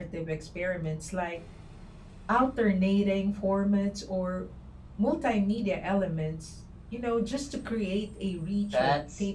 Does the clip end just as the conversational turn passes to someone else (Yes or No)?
Yes